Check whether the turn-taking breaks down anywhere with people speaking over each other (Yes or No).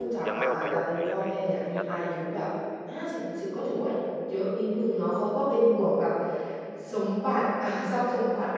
Yes